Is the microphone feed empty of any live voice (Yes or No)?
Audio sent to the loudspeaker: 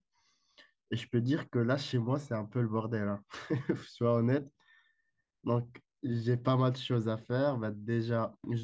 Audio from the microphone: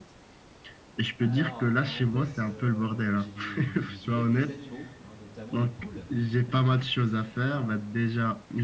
No